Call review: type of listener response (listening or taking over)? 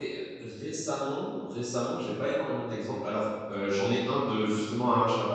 listening